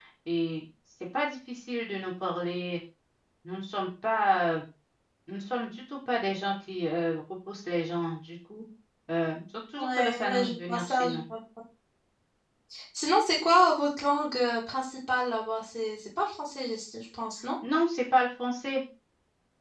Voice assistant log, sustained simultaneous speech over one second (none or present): present